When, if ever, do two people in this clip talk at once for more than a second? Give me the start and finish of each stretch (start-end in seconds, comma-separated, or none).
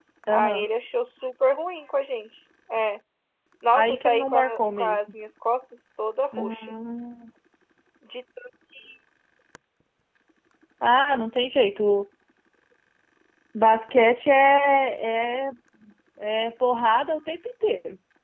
3.7-5.0